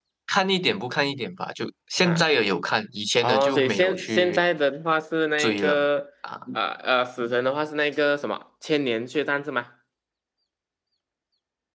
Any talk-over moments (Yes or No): Yes